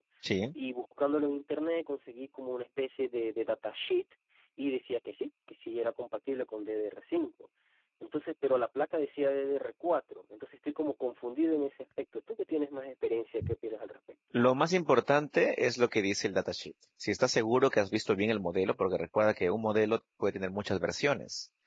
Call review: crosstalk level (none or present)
none